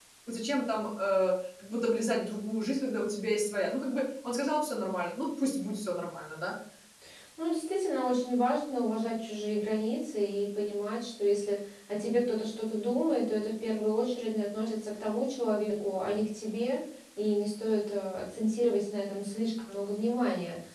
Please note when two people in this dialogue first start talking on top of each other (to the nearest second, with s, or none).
none